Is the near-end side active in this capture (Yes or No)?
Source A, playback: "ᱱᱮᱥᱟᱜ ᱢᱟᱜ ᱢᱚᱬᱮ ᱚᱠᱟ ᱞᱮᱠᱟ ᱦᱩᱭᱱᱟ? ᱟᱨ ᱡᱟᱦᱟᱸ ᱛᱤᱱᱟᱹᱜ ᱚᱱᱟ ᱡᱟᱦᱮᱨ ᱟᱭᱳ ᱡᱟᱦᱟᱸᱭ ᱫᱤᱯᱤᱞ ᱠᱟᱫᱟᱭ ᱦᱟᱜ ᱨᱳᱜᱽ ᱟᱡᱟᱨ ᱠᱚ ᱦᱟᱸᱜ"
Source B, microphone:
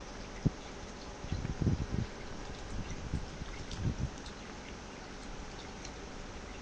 No